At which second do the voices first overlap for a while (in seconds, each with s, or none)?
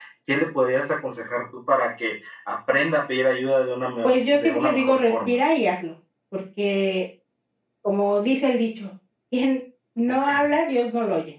4.0 s